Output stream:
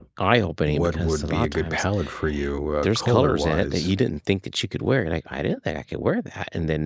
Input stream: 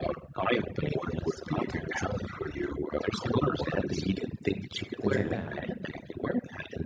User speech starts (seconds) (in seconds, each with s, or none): 4.8 s